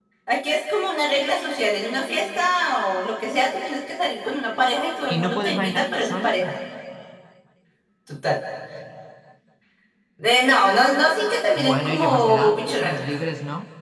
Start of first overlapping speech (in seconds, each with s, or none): 5.1 s